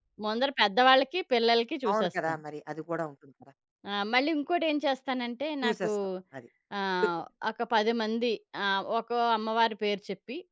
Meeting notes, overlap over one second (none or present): none